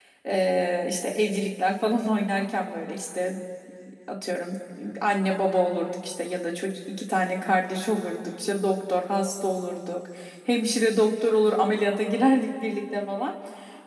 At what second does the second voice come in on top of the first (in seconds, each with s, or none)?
none